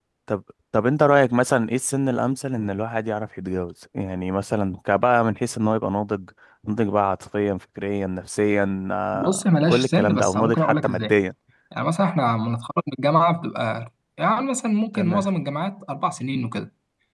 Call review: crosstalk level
present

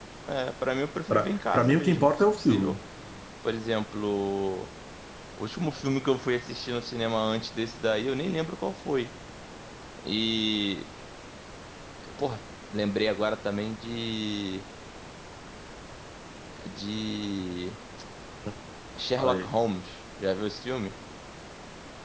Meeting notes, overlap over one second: present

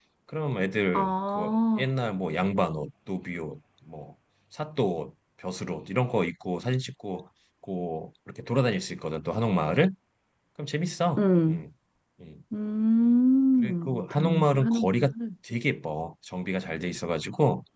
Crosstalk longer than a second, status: present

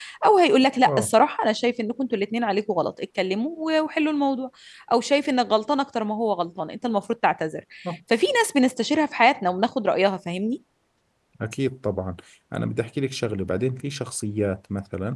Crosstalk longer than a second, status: none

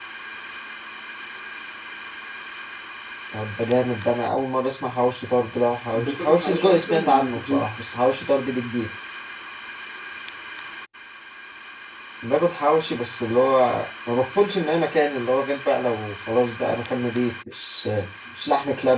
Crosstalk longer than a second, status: present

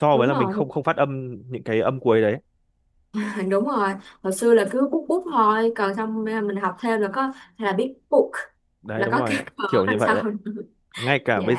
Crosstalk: present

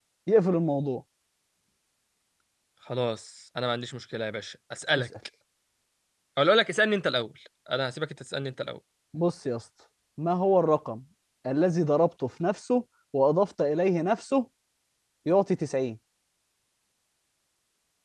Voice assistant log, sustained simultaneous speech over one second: none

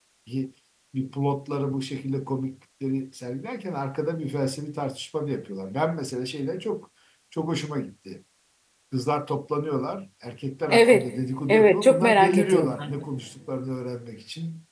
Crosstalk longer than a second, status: present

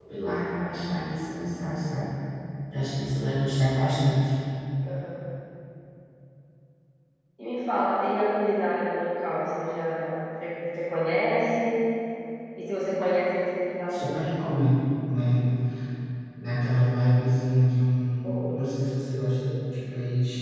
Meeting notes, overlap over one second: none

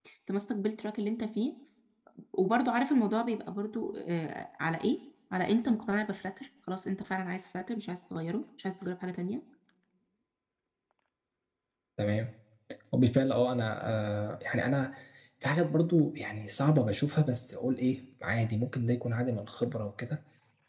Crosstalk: none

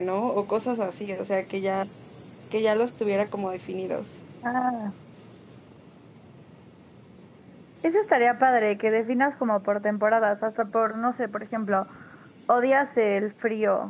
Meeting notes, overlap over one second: none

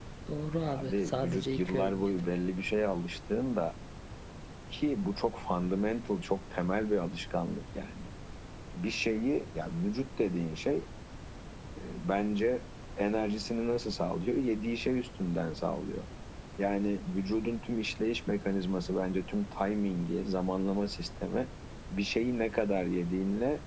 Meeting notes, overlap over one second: present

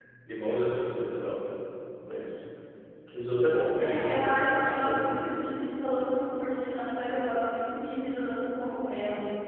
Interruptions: present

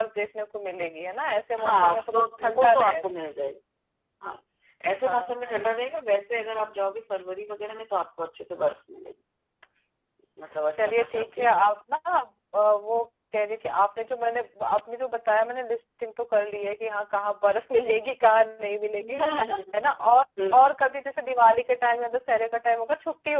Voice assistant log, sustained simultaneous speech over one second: present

